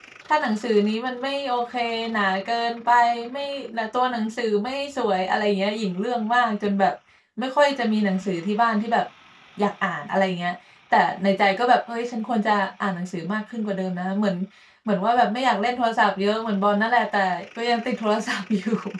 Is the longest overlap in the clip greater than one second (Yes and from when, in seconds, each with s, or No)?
No